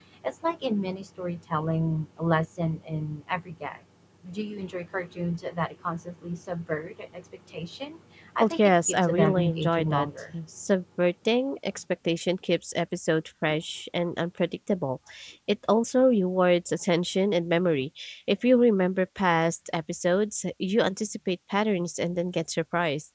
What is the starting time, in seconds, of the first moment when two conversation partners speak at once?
8.4 s

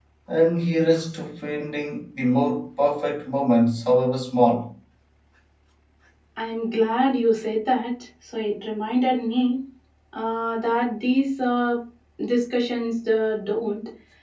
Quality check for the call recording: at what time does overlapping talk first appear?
none

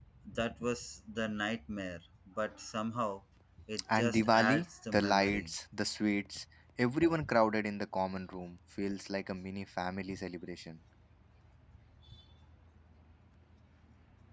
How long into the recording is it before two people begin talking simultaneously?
3.9 s

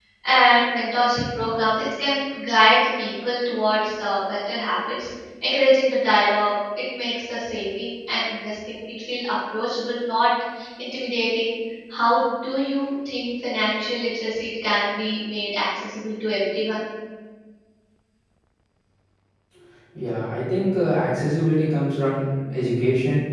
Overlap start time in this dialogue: none

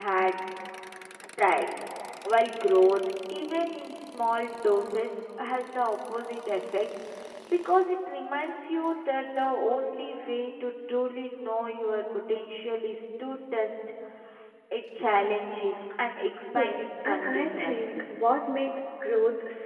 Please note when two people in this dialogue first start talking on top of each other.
16.6 s

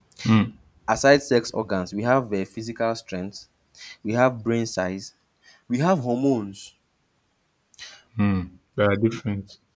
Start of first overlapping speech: none

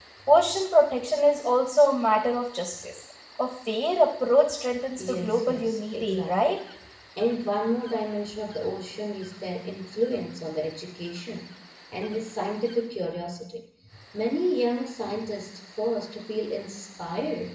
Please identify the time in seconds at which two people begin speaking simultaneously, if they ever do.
5.0 s

